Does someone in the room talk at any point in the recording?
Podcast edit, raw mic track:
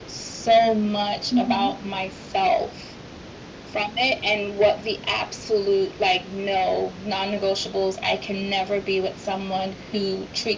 Yes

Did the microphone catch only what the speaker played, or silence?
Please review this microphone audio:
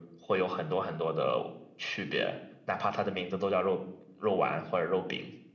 Yes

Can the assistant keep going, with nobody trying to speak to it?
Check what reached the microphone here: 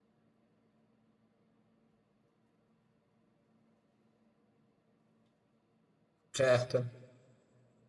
No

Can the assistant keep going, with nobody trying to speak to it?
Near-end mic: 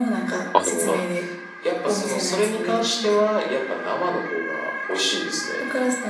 No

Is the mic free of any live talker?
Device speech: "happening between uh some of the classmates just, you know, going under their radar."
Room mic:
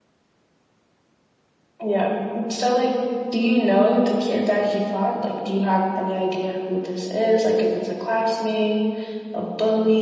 No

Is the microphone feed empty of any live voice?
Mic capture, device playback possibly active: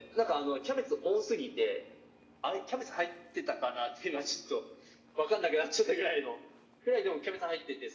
Yes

